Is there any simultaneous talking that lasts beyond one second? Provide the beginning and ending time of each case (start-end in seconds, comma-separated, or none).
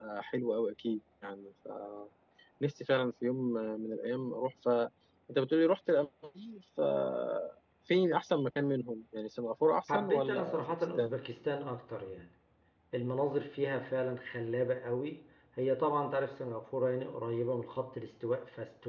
9.9-11.2